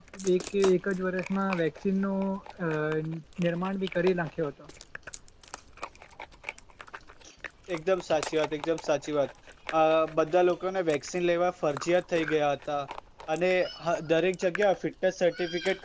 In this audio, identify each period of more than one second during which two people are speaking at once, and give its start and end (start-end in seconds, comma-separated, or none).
none